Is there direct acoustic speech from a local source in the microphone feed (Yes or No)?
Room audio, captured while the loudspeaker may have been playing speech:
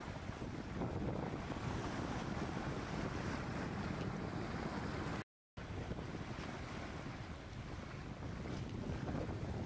No